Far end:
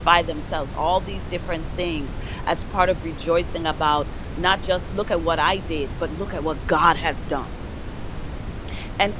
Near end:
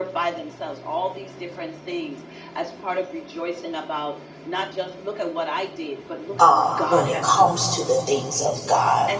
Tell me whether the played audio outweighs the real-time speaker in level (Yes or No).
No